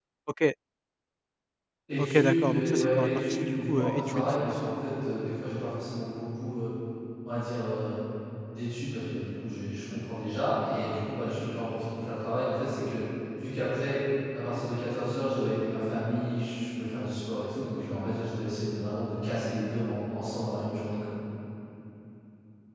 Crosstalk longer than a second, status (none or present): present